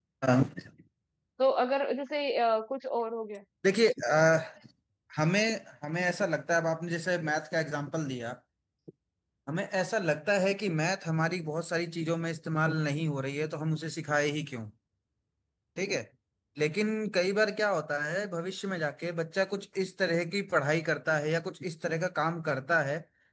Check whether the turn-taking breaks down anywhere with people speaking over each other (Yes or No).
No